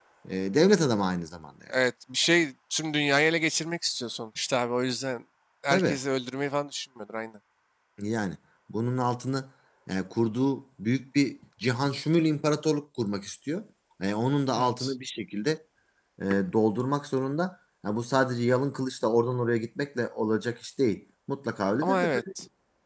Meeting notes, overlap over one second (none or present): none